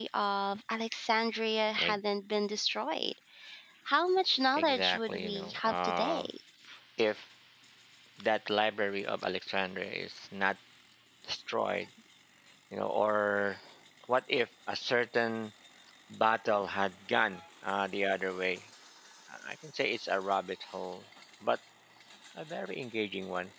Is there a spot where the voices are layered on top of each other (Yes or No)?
Yes